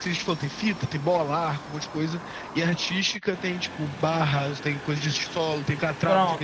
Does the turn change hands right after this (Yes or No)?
Yes